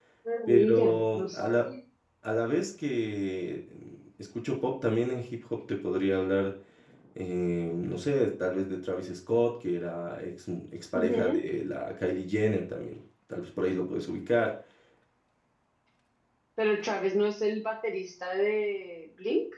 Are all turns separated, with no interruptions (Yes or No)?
No